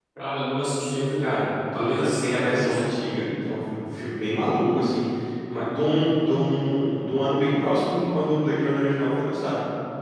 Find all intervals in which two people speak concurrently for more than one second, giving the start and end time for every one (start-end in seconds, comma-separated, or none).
1.2-2.9